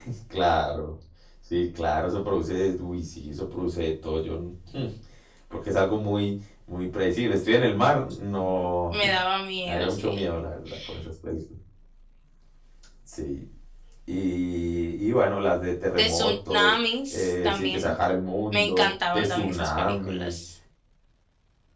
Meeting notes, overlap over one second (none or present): present